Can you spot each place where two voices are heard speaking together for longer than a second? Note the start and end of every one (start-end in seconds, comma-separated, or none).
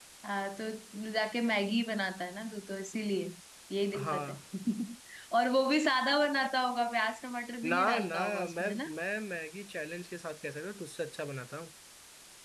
7.6-8.9